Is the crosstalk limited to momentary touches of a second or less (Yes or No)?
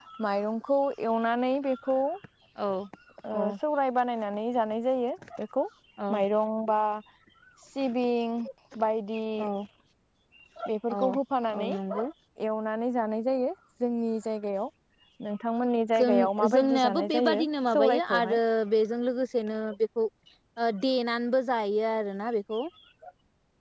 No